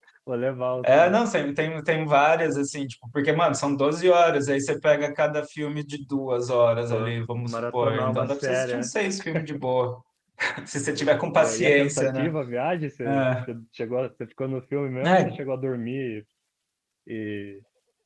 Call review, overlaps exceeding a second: present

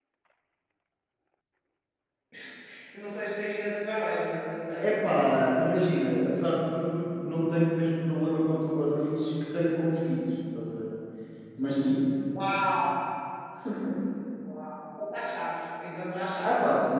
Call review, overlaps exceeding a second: none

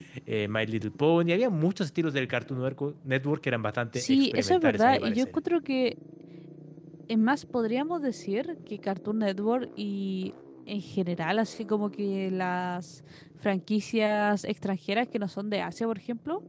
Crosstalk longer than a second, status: present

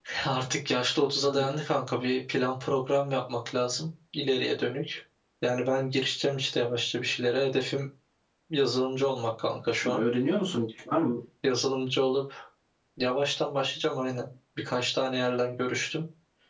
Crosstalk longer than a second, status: none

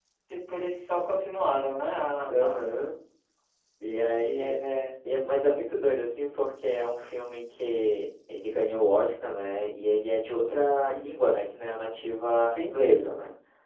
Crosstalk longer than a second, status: none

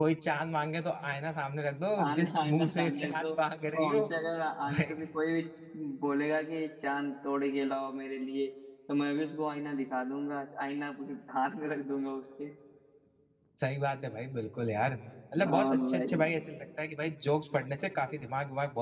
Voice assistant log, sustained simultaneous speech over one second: present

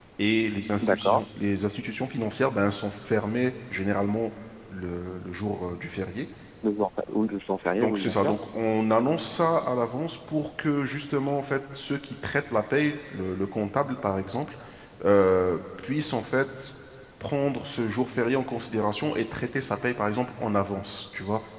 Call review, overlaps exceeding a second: none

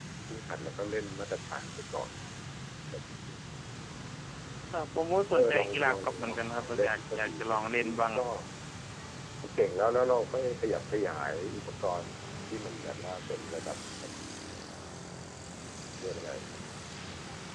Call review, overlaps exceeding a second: present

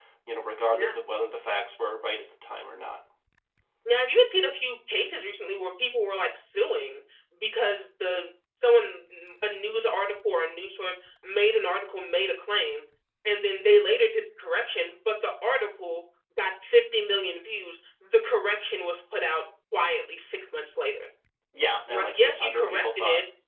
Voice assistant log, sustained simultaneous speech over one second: present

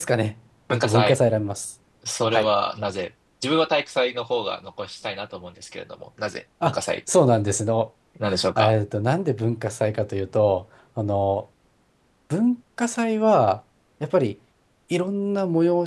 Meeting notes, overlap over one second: none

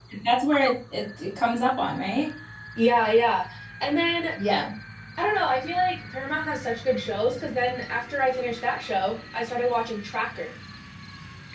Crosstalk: none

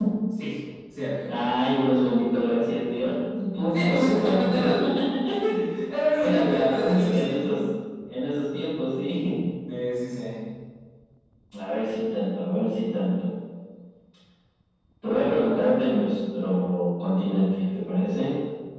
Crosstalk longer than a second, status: present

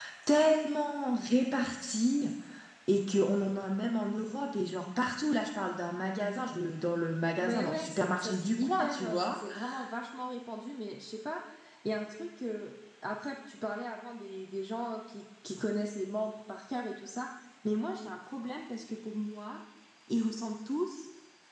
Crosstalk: present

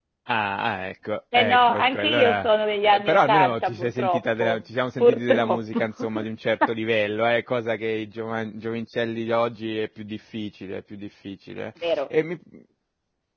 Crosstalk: present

